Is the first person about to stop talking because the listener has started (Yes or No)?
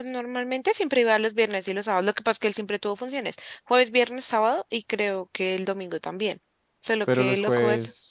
Yes